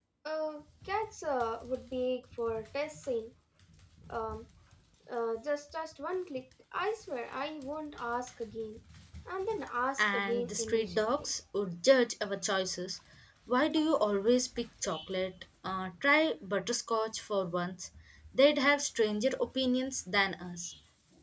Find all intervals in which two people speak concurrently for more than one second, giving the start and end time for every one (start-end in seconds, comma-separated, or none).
10.0-11.3